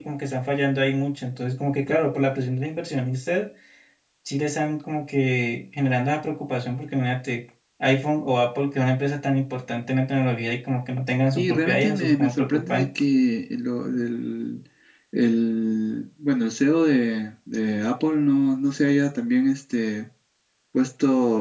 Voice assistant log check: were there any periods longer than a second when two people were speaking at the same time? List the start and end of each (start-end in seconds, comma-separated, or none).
11.4-12.9